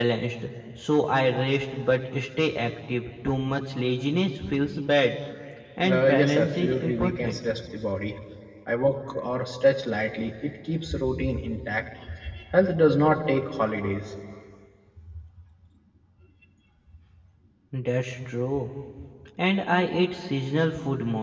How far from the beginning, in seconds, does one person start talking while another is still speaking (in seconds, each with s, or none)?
5.8 s